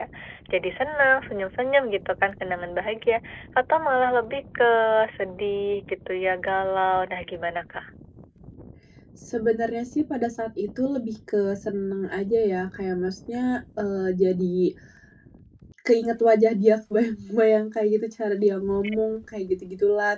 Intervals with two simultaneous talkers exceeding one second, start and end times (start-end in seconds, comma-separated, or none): none